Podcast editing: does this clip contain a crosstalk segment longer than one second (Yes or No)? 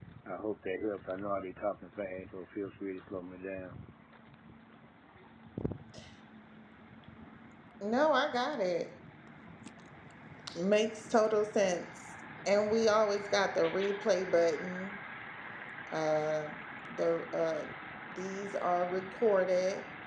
No